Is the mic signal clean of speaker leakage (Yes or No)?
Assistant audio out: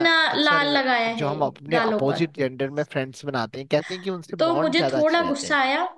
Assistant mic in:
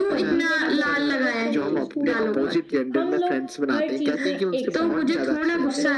No